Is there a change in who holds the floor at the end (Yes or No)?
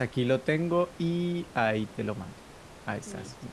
Yes